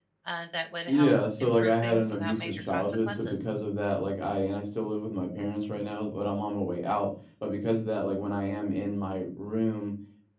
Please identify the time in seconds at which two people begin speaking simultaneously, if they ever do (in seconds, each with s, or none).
0.9 s